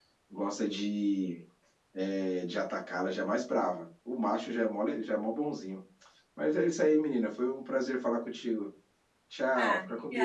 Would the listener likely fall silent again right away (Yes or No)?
No